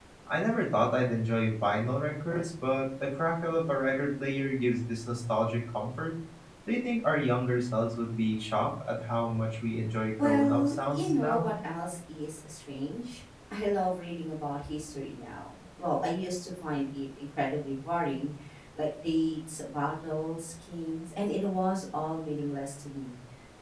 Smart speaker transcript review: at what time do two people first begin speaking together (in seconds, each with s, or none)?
10.1 s